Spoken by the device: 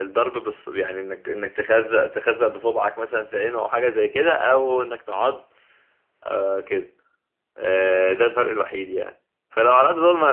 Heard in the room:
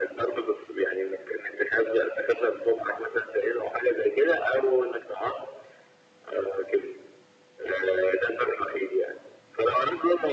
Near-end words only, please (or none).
none